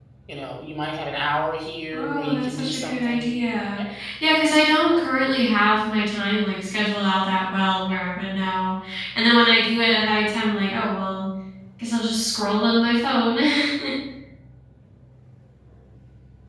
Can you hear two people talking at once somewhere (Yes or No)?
Yes